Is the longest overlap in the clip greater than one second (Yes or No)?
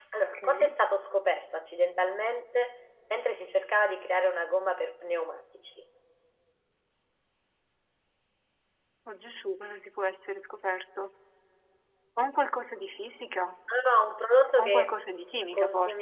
No